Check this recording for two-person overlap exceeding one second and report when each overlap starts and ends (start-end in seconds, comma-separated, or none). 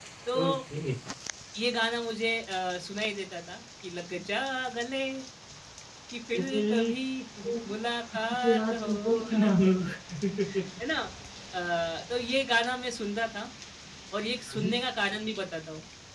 8.4-9.8